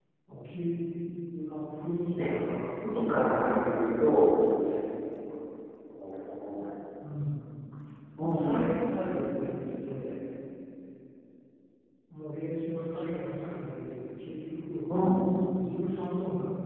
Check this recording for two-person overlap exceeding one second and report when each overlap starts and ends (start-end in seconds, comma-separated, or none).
2.9-4.2